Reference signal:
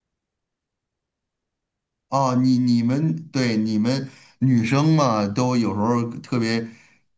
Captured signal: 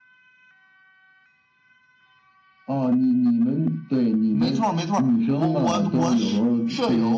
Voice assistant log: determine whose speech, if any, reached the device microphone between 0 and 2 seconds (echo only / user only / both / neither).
neither